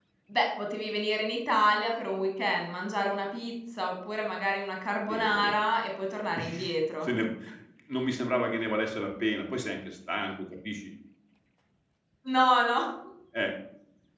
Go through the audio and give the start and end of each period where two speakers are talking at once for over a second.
none

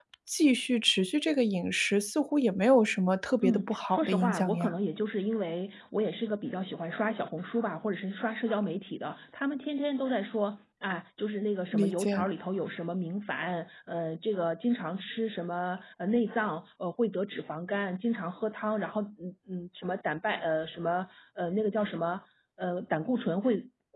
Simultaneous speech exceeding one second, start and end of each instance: 3.4-4.7

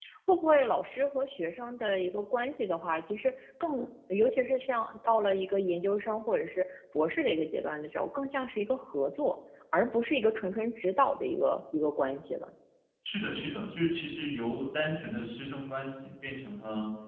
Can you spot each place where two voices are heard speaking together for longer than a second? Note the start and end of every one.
none

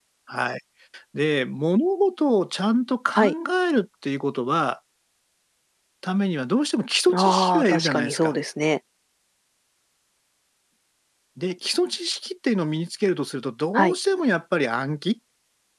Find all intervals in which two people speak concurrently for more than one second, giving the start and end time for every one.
7.1-8.3

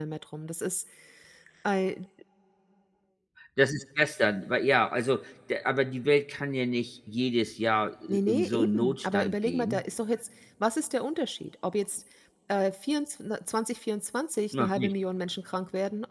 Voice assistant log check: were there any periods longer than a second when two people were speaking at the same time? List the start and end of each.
8.1-9.8

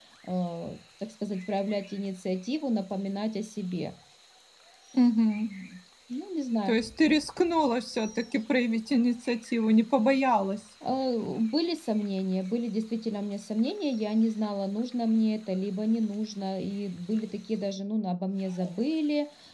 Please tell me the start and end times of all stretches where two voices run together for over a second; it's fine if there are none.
none

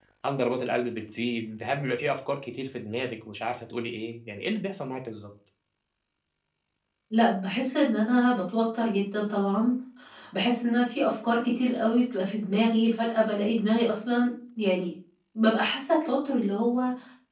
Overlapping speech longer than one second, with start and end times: none

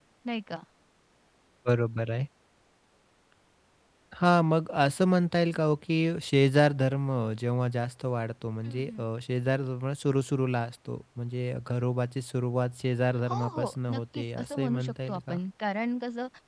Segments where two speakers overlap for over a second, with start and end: 13.3-15.4

